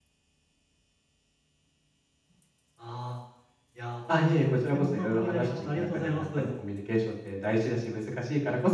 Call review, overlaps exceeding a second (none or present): present